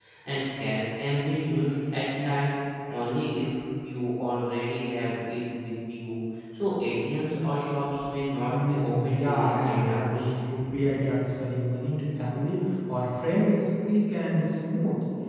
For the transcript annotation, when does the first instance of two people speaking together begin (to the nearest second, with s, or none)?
8 s